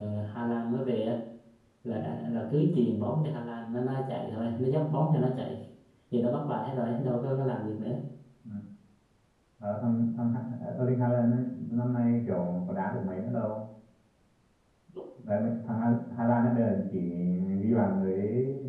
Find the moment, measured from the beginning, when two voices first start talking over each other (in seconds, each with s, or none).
none